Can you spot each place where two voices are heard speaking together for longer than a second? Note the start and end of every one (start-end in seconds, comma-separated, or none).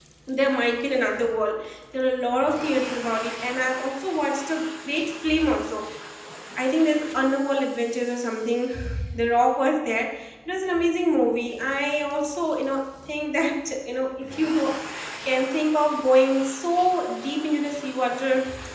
none